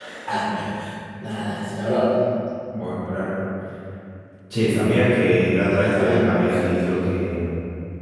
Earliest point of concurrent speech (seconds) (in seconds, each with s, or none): 5.7 s